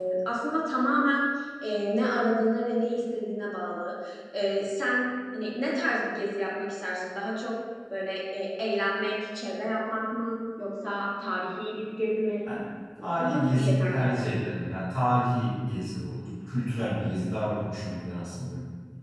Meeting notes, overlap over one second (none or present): present